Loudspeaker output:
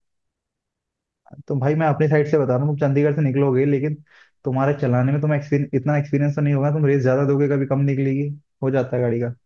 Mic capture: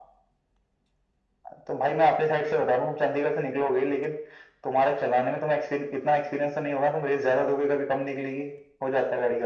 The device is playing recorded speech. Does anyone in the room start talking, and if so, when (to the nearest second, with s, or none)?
none